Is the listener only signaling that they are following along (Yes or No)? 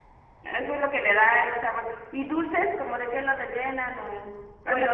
No